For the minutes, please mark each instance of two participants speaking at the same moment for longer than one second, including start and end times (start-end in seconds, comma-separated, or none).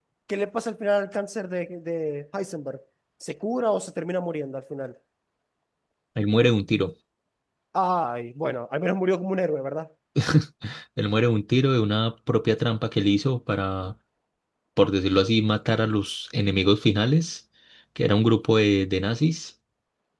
none